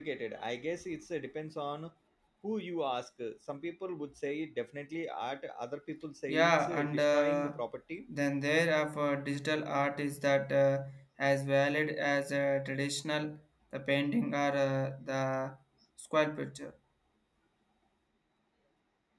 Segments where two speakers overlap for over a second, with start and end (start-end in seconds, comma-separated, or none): 6.3-7.6